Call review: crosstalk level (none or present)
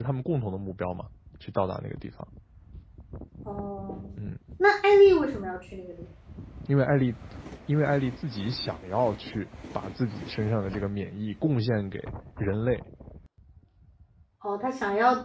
none